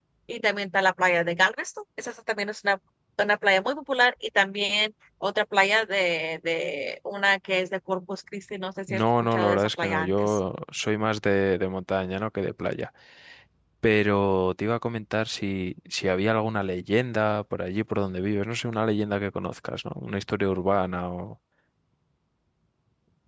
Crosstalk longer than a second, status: present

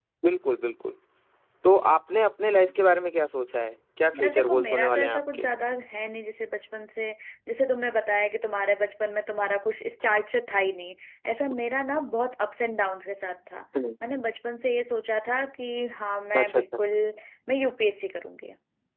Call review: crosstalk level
present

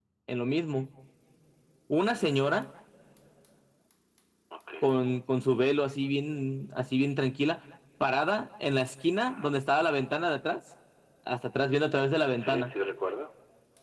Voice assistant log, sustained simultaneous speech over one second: none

